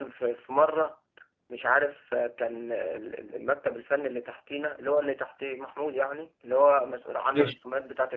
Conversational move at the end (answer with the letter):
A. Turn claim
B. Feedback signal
B